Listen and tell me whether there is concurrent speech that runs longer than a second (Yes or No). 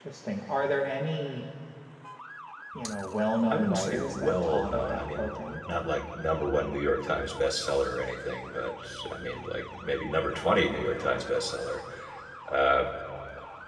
Yes